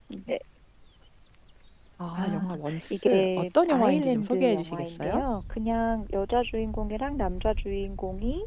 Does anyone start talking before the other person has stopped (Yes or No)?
Yes